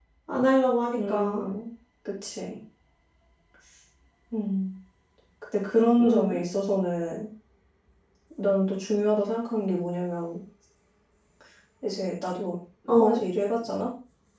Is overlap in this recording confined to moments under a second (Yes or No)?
Yes